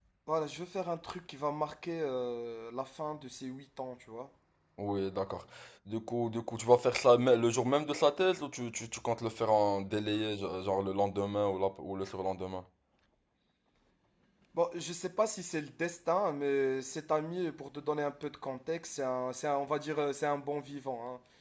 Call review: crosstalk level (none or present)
none